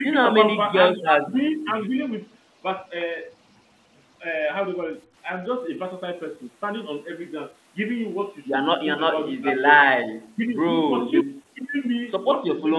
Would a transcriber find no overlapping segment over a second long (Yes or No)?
No